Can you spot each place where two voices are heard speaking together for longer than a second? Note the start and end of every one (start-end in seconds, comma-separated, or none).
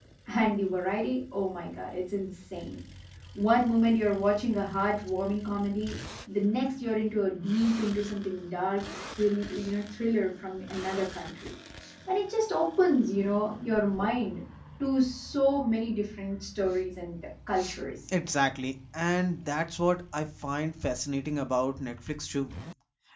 none